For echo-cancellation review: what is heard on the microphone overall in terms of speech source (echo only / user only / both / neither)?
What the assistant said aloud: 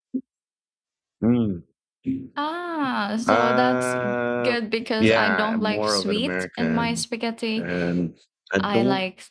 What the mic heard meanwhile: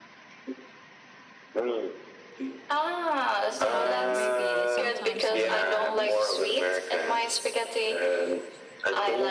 both